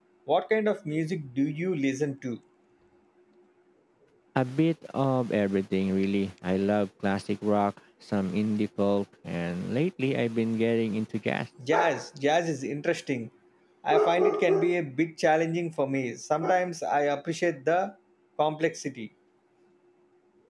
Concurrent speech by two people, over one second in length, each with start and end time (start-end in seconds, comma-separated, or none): none